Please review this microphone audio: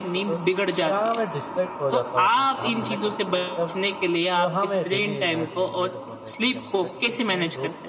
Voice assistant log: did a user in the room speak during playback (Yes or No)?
Yes